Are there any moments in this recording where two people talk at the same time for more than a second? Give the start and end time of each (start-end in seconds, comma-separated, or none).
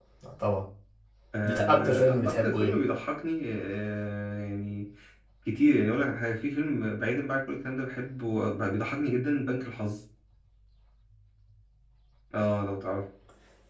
1.4-2.8